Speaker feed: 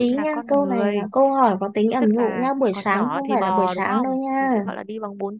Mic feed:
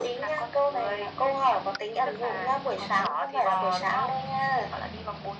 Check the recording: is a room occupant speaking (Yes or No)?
No